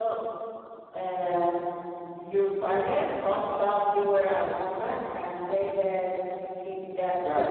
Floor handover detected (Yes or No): No